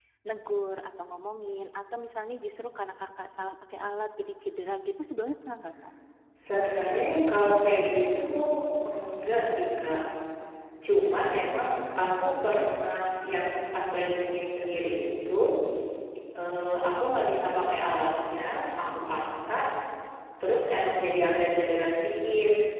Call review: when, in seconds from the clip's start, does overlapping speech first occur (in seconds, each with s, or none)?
none